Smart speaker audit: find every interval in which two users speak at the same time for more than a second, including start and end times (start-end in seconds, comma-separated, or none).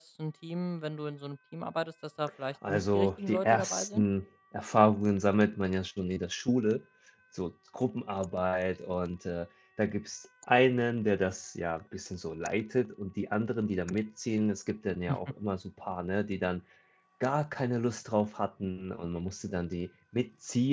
2.7-4.0